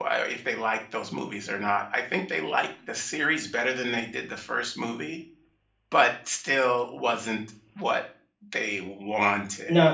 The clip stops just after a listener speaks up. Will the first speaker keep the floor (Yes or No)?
No